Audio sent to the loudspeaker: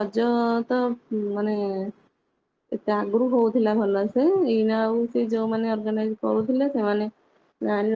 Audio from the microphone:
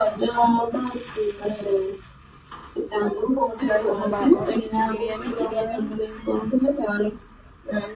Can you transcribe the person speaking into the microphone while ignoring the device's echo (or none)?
କଣ ବା- ଘରେ କିଛି ବିରିୟାନୀ ଫିରିୟାନୀ